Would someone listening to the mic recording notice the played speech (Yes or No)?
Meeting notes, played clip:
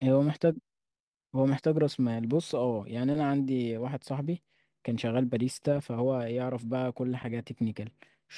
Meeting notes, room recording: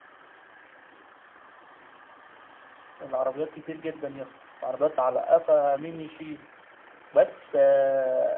No